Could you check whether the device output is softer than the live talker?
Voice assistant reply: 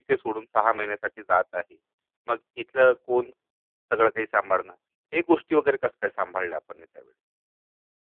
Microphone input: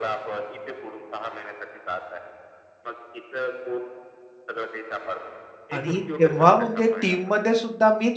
Yes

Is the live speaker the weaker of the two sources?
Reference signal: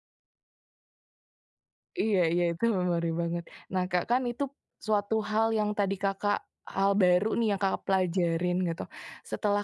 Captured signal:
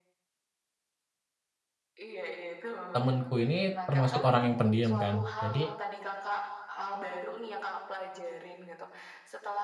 No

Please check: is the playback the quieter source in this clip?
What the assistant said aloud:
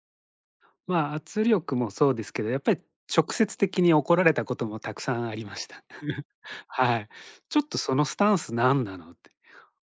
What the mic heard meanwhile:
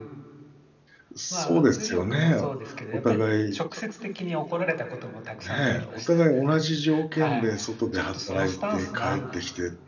Yes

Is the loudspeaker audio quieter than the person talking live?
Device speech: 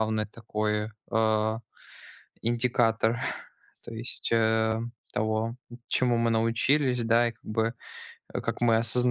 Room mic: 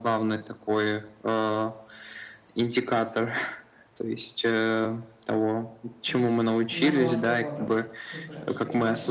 No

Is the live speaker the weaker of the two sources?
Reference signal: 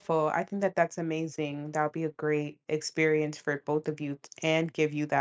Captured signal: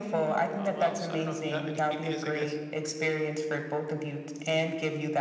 Yes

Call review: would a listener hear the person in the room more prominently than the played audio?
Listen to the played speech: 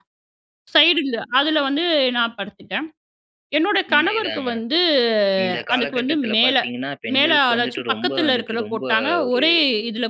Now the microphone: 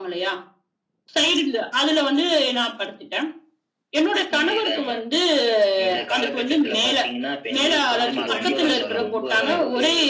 No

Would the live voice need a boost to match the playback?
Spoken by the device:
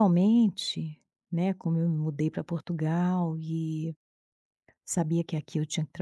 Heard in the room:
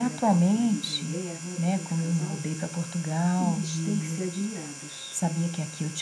Yes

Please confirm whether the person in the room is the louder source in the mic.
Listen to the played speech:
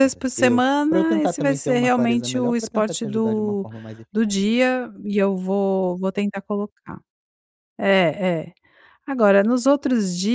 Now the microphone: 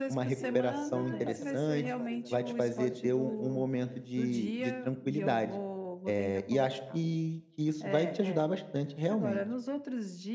Yes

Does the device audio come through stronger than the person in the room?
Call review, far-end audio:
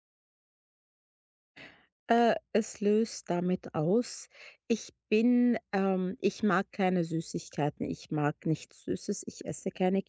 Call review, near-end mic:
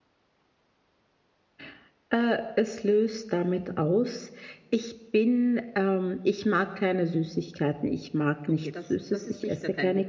Yes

